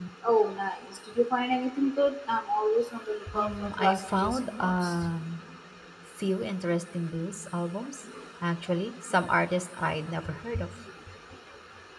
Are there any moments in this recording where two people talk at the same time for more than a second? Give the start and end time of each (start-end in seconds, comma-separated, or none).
3.3-4.9